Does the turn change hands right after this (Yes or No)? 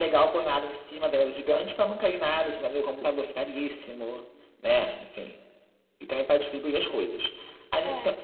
No